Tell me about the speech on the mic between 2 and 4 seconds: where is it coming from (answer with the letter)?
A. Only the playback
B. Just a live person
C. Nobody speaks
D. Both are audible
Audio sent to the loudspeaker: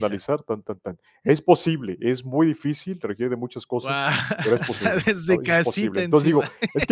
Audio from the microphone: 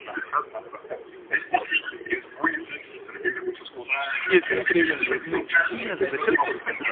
A